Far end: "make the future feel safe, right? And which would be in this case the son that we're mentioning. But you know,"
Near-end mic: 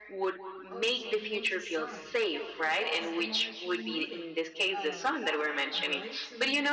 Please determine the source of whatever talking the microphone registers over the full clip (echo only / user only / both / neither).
both